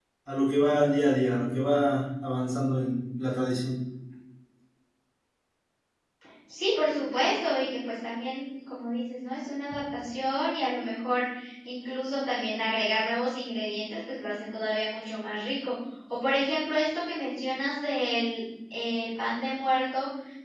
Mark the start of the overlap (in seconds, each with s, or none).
none